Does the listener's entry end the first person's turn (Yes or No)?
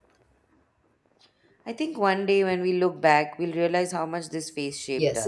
Yes